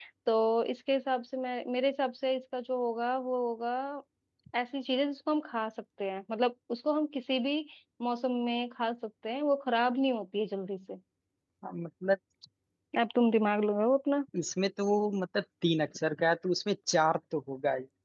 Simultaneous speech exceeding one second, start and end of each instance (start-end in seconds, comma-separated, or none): none